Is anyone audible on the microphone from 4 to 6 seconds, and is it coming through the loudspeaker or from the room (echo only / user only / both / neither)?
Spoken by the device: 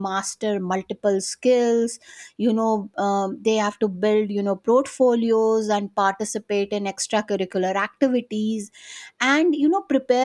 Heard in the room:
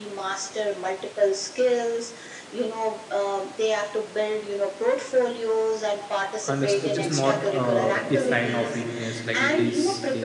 echo only